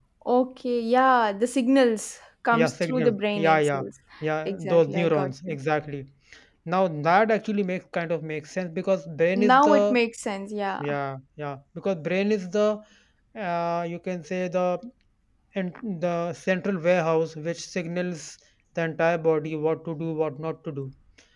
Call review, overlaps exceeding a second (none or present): present